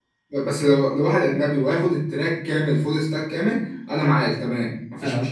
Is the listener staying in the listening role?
Yes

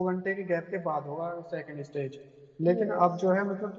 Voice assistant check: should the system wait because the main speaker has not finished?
Yes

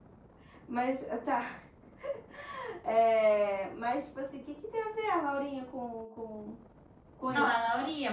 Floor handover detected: Yes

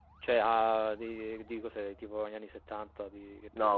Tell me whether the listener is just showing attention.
No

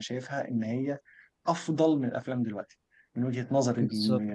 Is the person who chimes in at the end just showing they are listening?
No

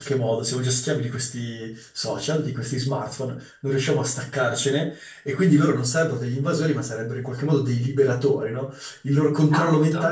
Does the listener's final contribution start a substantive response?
No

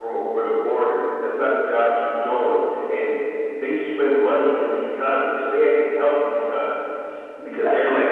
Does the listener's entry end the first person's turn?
Yes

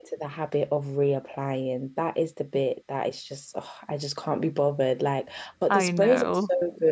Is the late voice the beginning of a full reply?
No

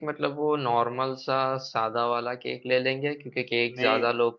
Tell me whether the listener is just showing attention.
Yes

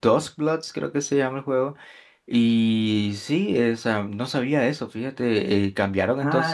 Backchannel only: No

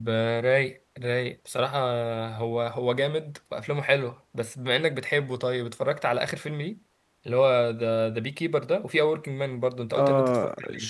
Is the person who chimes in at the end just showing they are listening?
No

